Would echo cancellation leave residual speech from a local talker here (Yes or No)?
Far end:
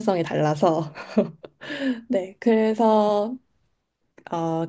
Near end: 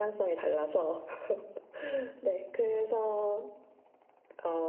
No